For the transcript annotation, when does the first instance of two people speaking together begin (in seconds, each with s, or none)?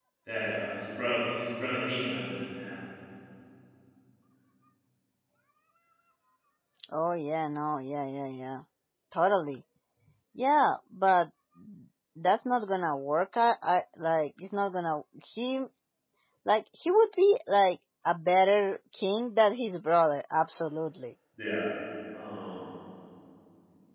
none